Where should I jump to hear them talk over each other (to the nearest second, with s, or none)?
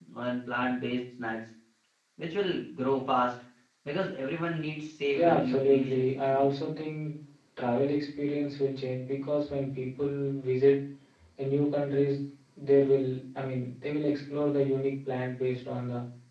5 s